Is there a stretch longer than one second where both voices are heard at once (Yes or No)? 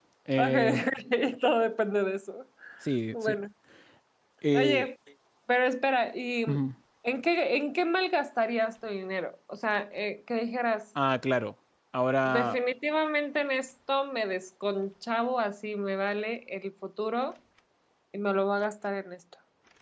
No